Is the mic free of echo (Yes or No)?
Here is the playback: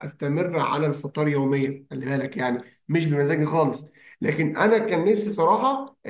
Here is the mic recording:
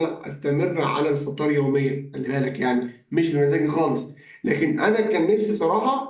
No